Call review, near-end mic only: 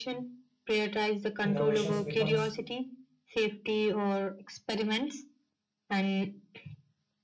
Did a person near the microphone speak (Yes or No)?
Yes